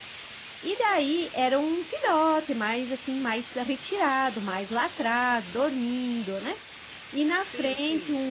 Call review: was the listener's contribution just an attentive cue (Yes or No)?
Yes